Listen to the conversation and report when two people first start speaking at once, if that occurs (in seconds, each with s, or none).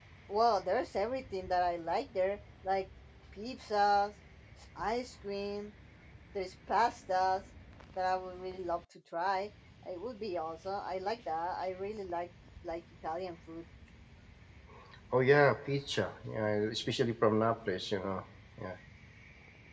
none